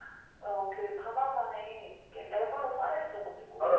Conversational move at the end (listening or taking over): taking over